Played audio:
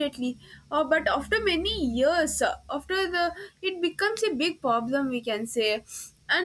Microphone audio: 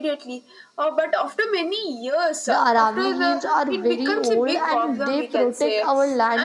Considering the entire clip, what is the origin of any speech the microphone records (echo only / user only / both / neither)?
both